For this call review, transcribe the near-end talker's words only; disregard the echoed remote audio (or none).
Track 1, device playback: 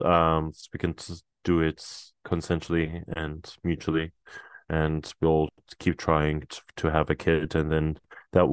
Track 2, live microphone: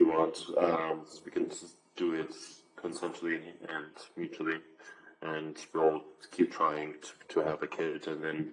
none